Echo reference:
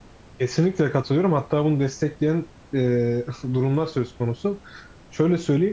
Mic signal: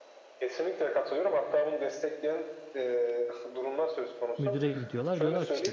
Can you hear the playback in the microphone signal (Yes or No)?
Yes